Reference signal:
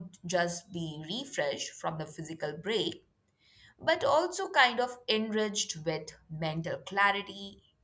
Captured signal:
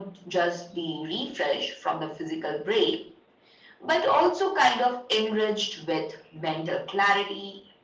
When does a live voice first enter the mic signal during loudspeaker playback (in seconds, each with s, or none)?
none